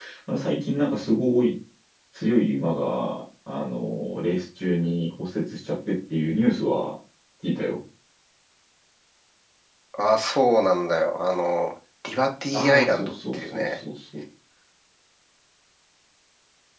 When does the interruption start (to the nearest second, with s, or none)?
13 s